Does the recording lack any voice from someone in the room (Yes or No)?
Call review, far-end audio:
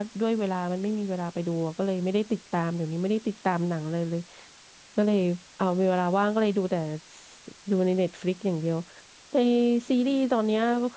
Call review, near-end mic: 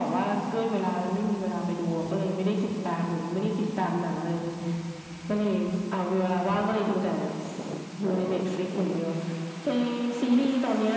Yes